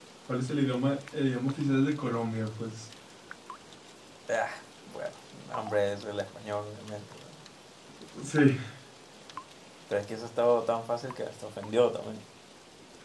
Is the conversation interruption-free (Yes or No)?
Yes